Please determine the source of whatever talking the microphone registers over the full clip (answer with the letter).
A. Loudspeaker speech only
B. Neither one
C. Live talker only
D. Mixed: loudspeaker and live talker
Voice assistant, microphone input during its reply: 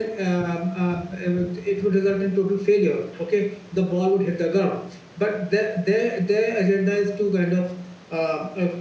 C